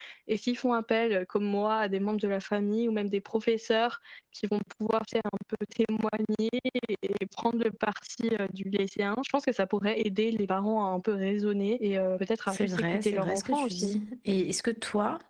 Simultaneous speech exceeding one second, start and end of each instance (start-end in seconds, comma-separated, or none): 12.5-13.9